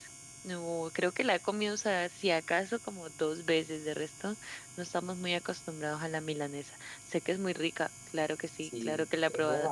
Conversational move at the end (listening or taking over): taking over